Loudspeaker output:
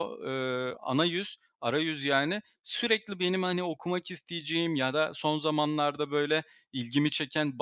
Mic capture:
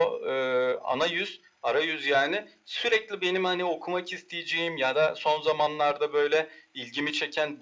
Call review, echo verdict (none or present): present